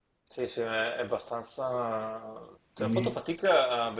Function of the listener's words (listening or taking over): listening